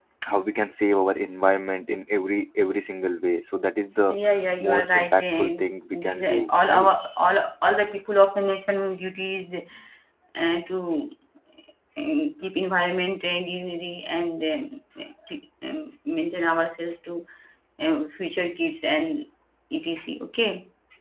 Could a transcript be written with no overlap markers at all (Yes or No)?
No